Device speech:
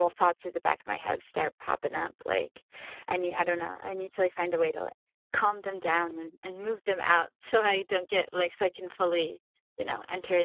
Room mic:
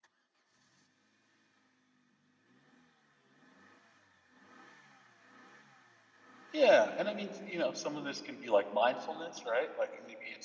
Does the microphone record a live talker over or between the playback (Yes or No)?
Yes